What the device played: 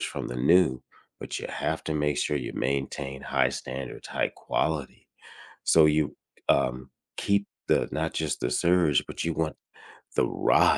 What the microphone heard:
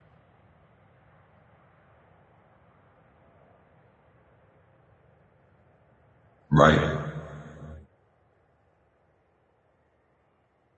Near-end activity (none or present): present